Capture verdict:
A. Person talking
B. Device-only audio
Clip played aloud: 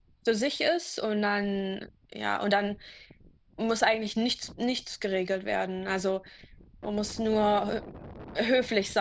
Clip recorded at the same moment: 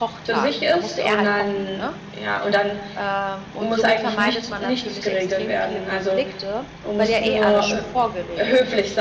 A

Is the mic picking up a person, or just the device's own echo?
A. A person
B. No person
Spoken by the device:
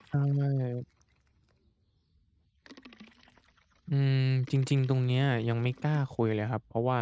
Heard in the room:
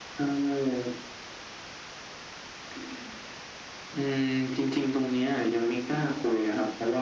B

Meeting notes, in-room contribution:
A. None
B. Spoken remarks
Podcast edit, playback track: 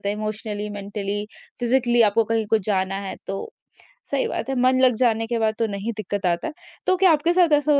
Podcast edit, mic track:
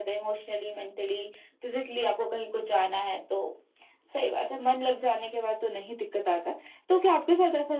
A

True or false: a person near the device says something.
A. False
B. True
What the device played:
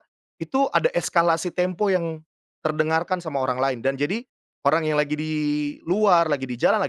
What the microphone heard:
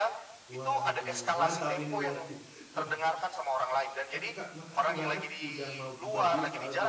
B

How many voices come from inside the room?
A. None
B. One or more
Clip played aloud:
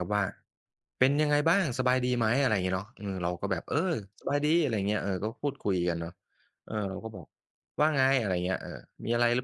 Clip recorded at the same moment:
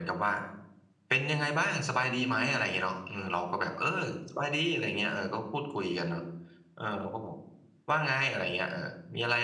B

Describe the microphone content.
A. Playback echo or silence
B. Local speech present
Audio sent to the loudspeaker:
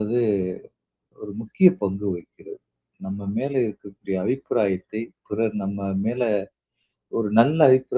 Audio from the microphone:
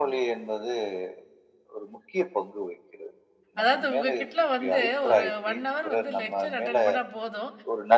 B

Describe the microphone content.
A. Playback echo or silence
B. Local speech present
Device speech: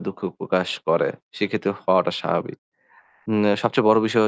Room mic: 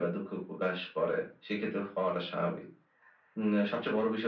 A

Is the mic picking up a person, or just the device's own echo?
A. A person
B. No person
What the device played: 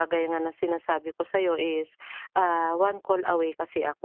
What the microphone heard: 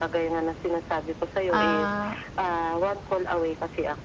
A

